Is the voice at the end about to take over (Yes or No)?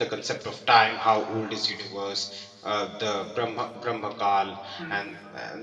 No